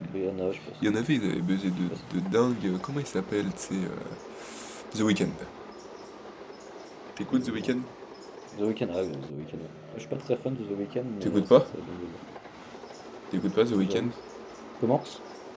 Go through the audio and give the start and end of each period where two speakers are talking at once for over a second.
none

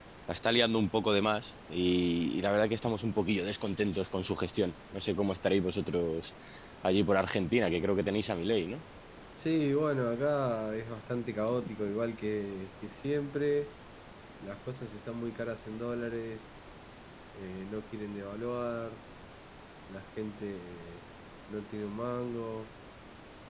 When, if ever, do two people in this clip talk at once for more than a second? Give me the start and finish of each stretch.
none

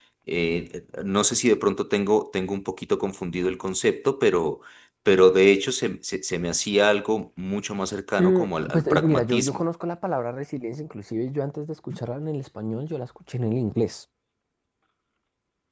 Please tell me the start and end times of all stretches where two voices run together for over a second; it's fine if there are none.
8.2-9.6

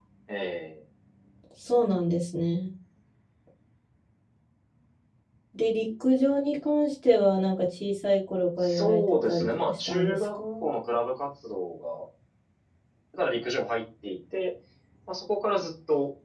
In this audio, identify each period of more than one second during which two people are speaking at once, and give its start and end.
8.6-10.4

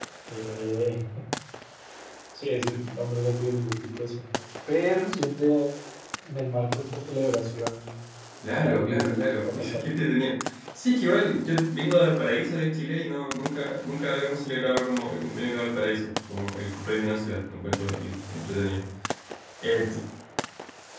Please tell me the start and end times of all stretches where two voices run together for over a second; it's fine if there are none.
8.6-9.8

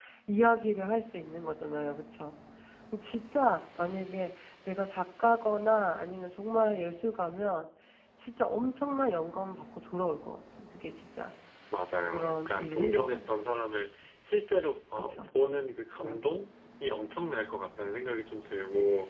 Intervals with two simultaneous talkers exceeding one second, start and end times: 12.1-13.3

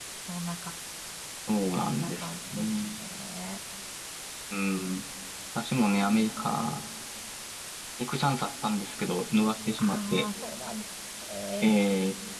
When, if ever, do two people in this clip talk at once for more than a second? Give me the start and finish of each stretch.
1.6-3.0

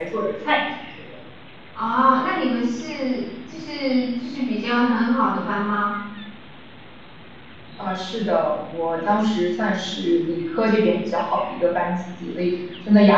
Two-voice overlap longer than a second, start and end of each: none

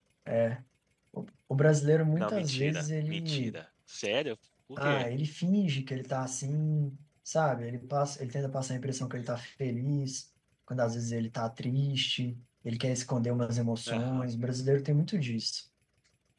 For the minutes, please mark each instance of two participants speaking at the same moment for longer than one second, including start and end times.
2.1-3.6

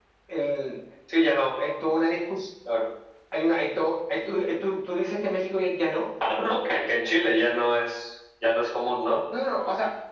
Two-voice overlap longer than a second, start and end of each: none

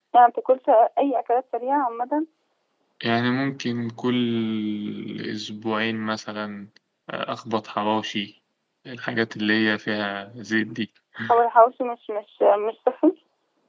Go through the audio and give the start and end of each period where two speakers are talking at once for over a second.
none

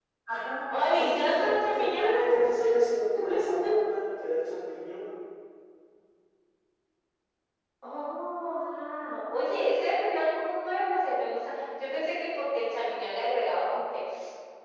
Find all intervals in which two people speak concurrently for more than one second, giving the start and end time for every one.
0.9-2.4

